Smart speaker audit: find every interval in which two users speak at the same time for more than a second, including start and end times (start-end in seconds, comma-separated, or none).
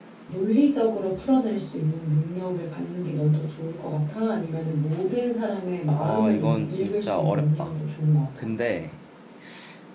6.0-7.8